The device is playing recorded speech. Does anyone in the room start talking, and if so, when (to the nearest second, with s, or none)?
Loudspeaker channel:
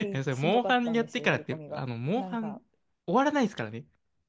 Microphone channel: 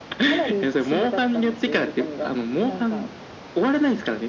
none